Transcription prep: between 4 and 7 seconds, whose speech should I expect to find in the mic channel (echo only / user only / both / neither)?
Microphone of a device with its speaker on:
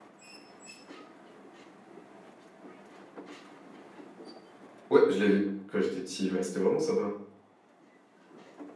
user only